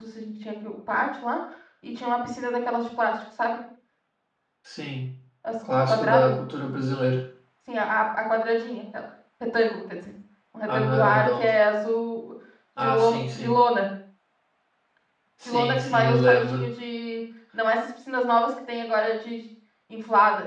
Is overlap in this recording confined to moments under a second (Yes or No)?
No